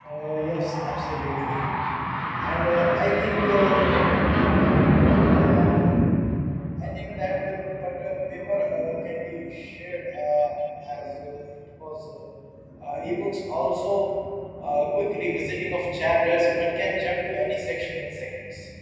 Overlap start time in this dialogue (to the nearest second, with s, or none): none